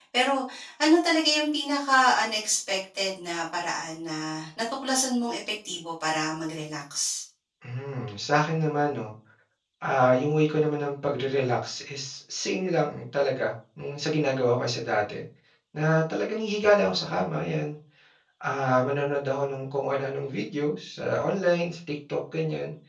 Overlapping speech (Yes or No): No